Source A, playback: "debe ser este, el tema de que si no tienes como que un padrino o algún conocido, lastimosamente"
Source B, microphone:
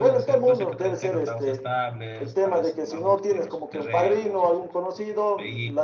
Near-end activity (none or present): present